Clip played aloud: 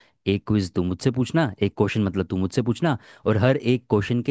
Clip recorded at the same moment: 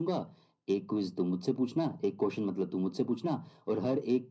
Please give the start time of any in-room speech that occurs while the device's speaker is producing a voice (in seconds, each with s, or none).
none